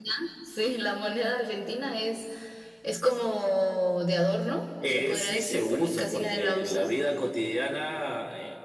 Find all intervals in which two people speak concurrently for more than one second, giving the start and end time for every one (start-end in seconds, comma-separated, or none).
4.8-6.9